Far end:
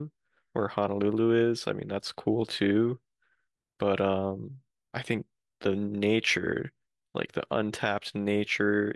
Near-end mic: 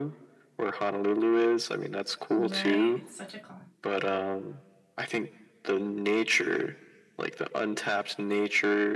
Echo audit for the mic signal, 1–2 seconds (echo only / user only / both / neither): echo only